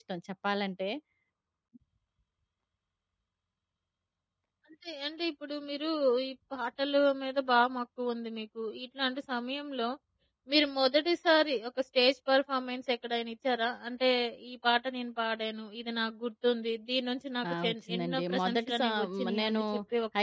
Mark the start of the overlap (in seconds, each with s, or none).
17.4 s